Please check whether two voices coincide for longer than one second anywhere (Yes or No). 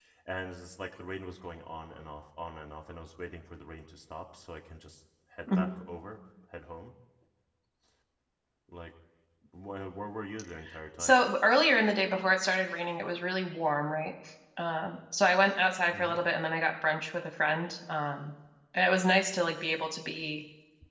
No